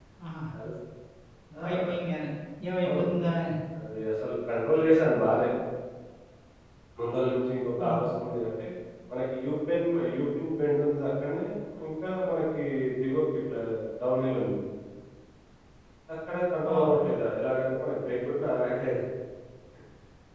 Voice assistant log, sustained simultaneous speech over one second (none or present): none